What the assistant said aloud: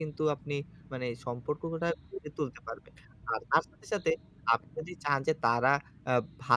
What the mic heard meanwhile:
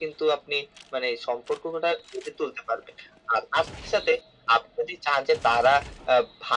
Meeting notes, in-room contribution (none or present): none